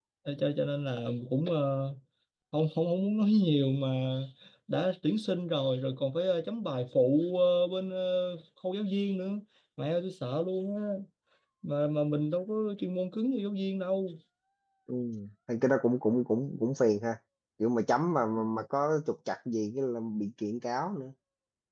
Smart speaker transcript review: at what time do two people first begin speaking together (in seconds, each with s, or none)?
none